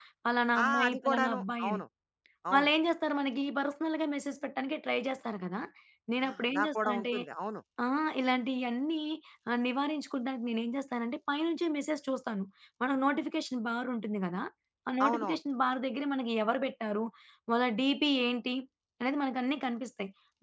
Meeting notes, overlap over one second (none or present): present